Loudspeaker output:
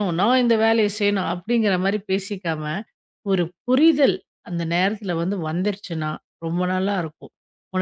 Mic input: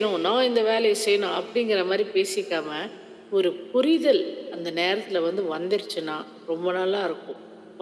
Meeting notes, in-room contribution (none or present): none